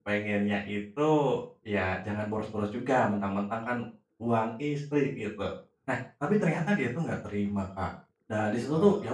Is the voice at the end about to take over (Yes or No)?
No